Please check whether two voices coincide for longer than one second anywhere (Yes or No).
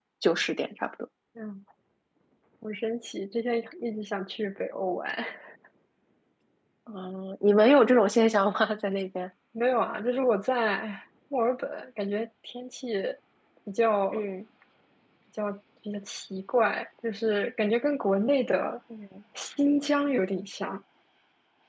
No